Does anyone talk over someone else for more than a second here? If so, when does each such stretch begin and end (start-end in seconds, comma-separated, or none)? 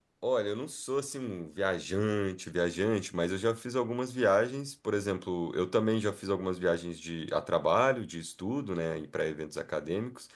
none